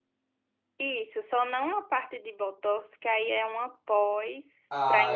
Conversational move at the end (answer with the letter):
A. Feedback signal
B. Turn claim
B